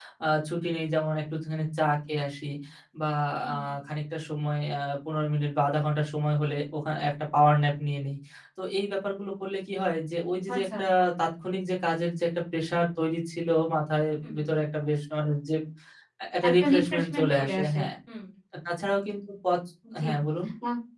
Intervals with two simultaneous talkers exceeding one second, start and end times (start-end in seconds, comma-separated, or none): 16.5-17.9